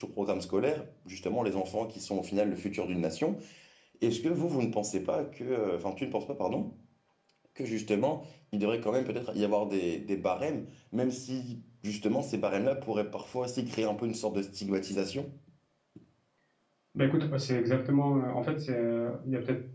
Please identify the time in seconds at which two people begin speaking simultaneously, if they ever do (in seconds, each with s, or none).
none